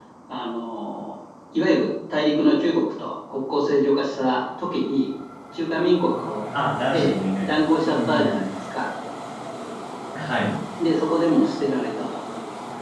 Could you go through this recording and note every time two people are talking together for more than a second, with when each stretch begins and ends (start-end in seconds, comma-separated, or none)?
6.9-8.5